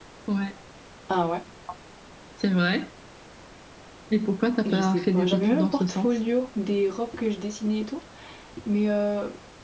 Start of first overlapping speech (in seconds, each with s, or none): 4.7 s